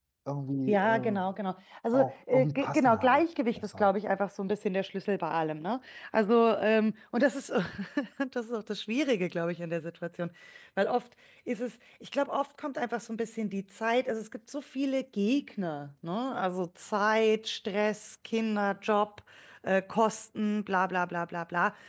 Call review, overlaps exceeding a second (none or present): present